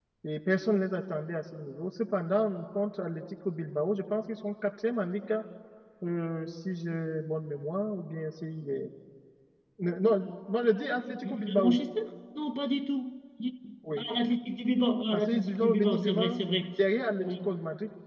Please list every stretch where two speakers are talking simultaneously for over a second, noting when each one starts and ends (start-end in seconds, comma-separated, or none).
15.1-16.7